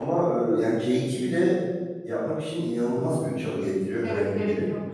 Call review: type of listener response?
taking over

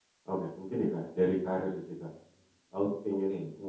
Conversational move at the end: listening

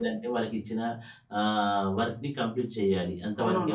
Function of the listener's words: taking over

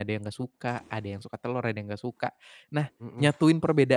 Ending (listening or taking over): listening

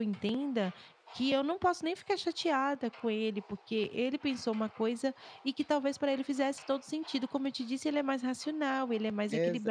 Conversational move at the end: taking over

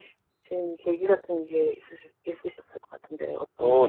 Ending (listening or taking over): taking over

